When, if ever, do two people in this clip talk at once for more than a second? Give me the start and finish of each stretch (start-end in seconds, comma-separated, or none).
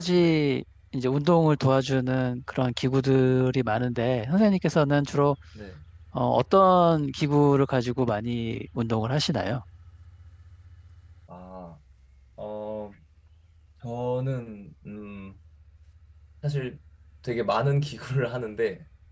none